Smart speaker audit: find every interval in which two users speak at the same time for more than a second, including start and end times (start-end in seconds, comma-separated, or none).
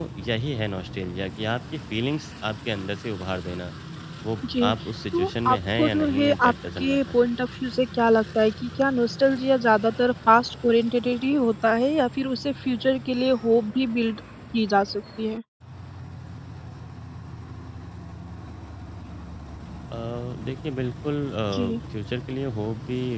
5.1-7.2